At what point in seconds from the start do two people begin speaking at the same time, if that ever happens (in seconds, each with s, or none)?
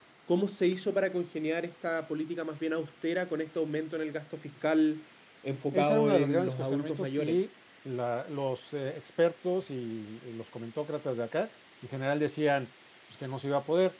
5.7 s